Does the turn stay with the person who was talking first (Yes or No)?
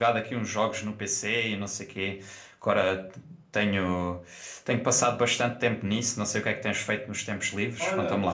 No